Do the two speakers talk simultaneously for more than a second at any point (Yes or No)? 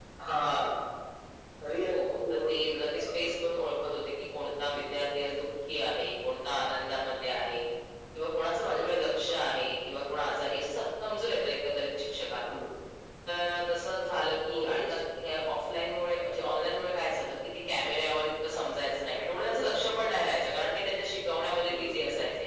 Yes